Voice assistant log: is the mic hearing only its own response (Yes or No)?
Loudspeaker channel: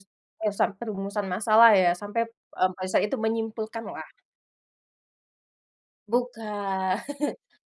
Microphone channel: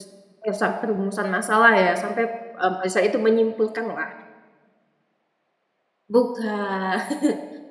Yes